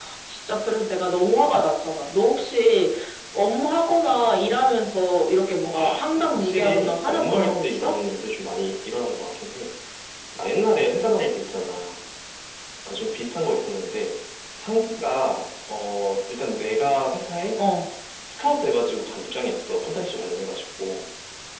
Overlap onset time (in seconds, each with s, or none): 5.7 s